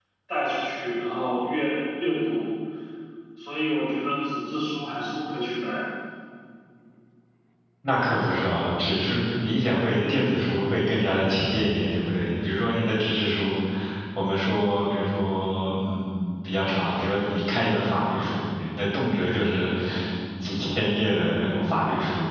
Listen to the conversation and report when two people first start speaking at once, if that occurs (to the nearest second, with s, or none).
none